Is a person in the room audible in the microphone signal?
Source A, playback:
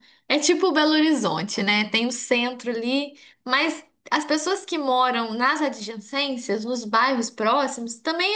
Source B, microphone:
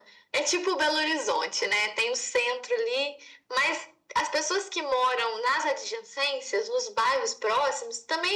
No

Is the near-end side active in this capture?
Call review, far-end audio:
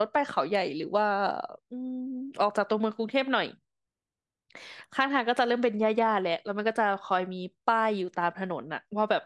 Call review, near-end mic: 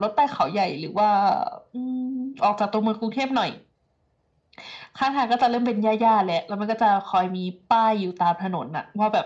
No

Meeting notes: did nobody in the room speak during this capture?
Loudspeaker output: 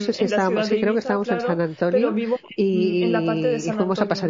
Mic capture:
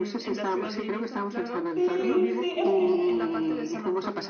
No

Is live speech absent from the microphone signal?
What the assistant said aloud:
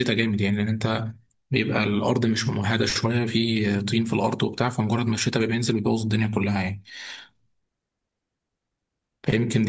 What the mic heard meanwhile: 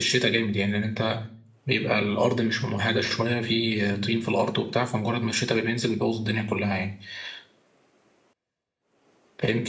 Yes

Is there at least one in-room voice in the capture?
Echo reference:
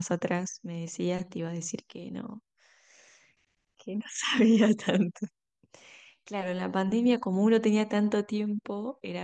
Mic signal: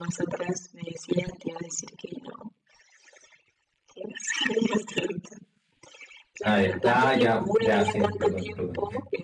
Yes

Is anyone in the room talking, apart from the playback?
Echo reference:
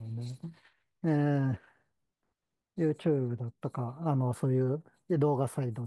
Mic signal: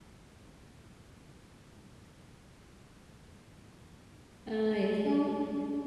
Yes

